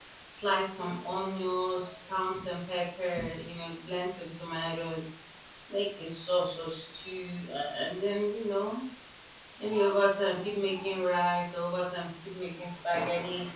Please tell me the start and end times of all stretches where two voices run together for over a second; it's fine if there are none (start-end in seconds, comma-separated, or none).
none